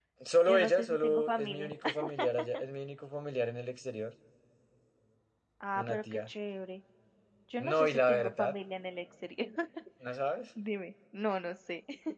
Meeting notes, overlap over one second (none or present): present